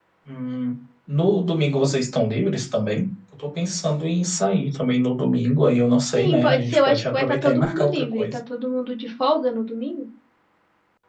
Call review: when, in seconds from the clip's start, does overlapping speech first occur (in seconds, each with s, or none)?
6.2 s